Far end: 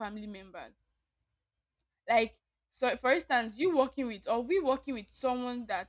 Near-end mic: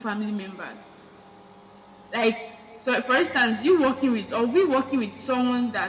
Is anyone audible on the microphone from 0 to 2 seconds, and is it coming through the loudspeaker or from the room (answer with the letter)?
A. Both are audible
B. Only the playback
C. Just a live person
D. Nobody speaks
B